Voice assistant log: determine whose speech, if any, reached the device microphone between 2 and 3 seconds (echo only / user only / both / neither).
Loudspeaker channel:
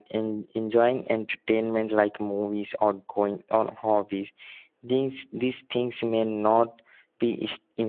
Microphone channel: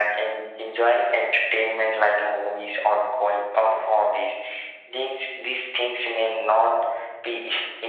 echo only